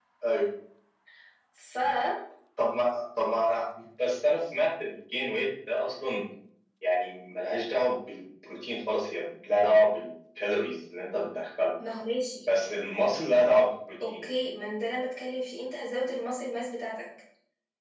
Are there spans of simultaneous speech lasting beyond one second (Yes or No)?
No